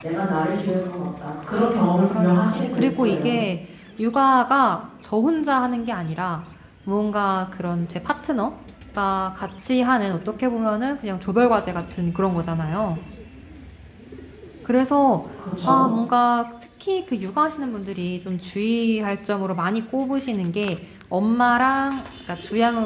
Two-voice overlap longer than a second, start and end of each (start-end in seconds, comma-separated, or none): 2.1-3.4